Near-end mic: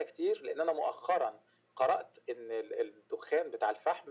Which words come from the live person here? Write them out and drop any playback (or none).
none